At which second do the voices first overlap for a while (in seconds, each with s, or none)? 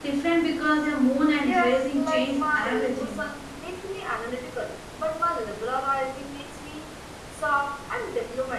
1.4 s